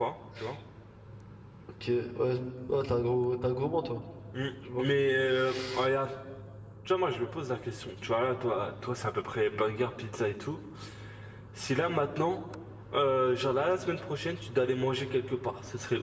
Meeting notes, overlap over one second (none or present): none